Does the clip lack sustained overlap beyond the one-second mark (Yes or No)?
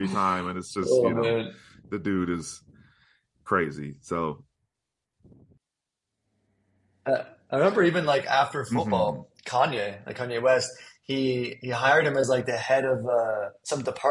Yes